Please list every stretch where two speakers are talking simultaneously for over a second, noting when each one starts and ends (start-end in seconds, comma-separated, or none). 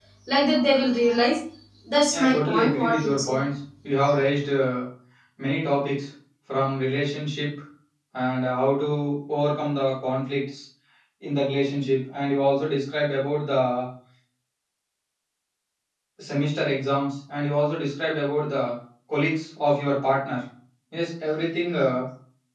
2.1-3.4